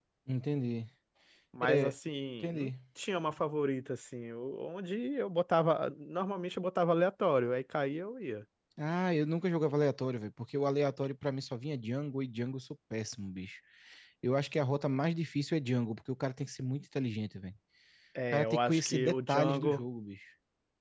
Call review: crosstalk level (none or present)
present